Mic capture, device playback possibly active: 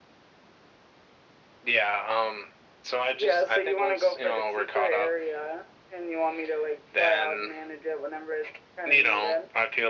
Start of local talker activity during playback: none

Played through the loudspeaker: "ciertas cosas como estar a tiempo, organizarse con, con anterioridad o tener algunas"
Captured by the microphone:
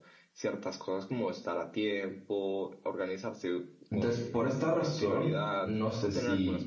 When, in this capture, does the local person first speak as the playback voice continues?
3.9 s

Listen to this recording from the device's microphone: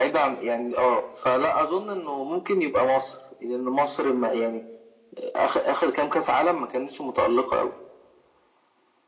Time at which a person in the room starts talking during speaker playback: none

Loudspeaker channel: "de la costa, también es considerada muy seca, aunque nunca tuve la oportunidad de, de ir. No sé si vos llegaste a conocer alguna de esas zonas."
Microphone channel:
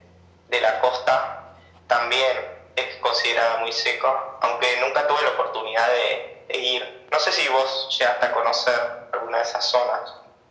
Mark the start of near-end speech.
none

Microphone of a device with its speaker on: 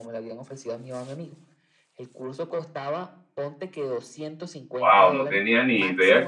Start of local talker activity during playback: 4.8 s

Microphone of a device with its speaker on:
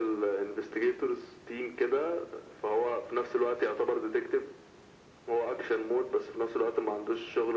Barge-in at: none

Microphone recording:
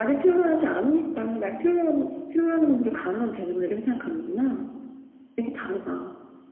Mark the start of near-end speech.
none

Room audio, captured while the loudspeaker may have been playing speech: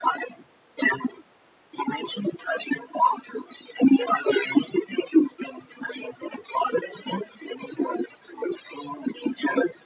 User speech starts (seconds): none

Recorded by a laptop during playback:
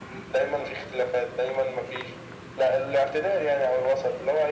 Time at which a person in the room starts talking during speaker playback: none

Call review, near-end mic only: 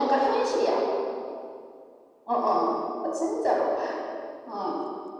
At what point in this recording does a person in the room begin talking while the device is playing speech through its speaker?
none

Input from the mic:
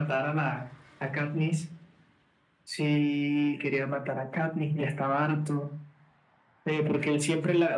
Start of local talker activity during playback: none

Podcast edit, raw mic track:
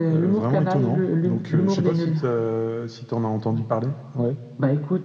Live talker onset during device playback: none

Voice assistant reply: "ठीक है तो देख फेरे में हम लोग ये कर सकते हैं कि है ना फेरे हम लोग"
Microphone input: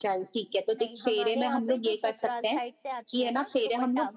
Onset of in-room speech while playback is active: 0.8 s

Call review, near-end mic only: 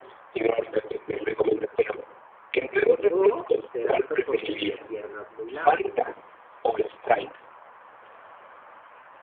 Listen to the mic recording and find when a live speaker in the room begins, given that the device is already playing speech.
3.1 s

